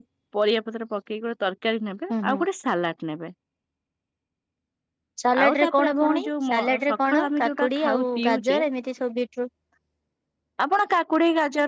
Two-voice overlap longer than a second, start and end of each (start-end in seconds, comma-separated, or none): 5.4-8.6